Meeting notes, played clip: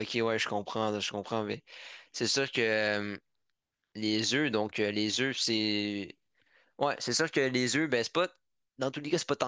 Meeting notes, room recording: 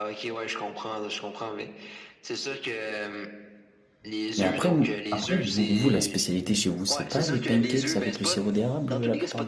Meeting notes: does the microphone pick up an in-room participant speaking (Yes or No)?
Yes